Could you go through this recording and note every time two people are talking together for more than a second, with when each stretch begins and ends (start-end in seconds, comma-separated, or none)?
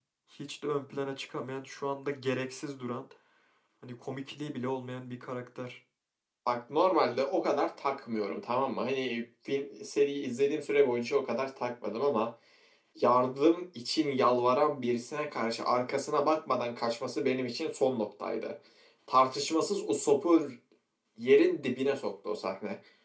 none